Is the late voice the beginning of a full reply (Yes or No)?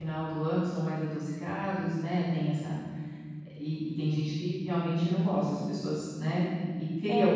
Yes